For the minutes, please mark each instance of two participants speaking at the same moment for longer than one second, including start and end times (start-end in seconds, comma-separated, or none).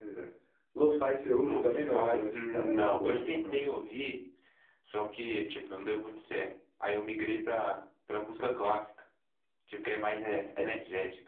1.4-3.7